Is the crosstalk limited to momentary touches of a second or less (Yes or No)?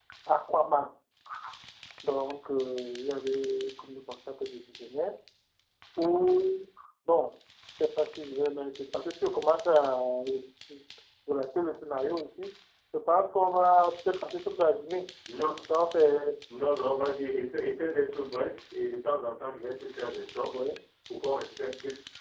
Yes